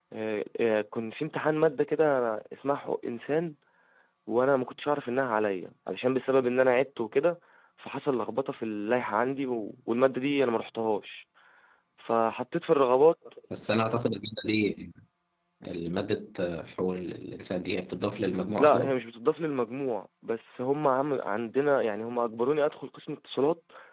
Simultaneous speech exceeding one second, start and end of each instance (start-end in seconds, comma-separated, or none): none